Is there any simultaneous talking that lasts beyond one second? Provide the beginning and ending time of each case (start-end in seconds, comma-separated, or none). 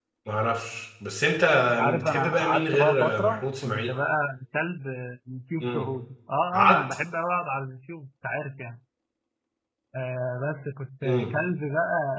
2.0-3.9